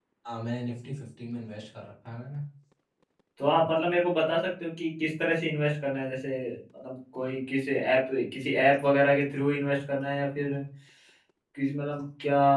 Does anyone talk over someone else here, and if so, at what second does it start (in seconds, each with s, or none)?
none